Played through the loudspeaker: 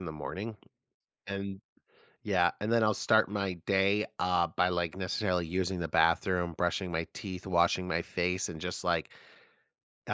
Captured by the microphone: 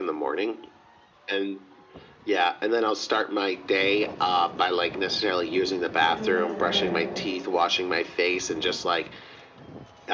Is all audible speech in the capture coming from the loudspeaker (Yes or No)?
No